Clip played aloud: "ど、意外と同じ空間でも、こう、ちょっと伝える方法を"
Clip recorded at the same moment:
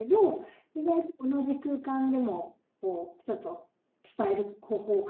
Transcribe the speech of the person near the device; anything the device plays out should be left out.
none

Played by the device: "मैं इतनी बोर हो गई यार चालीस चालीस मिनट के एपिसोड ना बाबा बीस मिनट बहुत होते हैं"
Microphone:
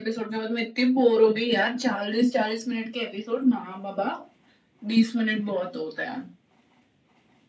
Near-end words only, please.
none

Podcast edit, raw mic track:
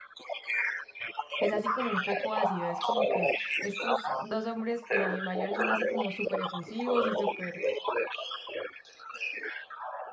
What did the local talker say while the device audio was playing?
que es así como un poco ácido. Es como que estos dos hombres eh, mayores son así como súper efusivos y súper

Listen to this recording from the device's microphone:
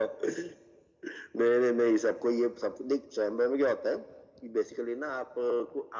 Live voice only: none

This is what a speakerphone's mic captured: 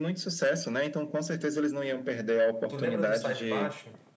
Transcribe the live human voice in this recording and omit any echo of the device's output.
Tu lembra do Sai de Baixo?

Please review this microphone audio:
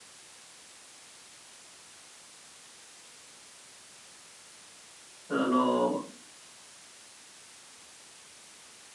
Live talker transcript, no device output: あの、

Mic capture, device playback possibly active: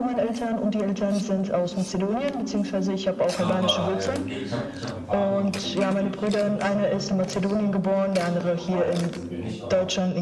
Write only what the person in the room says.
Aber ähm, nee, ich habe ich hab einen Partner, mit dem lebe ich jetzt seit zwei Jahren ungefähr zusammen. Richtig, aber verheiratet sind wir nicht. Aber

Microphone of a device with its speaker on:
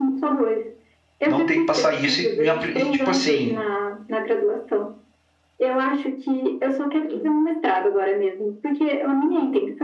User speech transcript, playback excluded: não ter que passar isso e, me apli- e, tipo assim,

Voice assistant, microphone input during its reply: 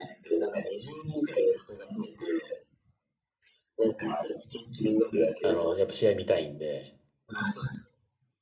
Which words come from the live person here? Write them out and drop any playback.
あの、やっぱ試合見たいんで、

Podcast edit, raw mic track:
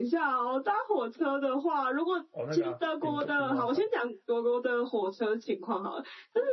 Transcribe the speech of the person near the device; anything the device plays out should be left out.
哦，那个啊，兵工兵工厂，

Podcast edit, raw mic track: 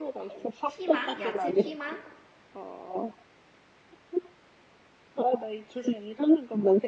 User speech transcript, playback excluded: 피망? 야채 피망?

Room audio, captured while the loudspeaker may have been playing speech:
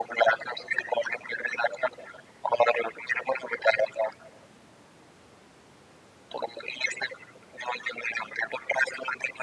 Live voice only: none

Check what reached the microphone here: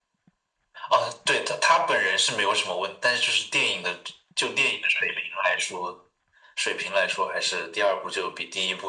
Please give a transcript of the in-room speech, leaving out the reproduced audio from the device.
none

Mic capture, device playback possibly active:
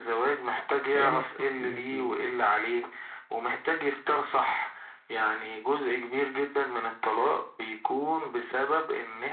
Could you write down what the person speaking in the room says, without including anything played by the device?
كلامك صح 100%

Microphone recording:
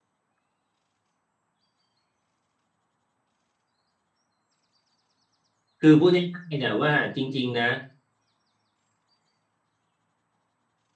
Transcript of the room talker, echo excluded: คือพูดง่ายๆเนี่ยว่าจริงๆนะ

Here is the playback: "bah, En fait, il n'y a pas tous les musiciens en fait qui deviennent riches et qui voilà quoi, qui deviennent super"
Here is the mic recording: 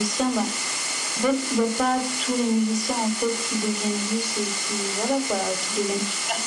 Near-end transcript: none

